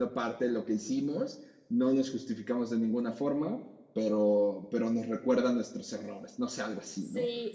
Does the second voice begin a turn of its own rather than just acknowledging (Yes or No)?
Yes